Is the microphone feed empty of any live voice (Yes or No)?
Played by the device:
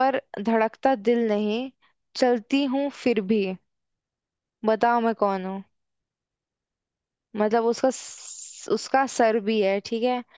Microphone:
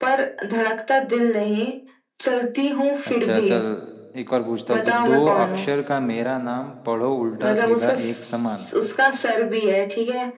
No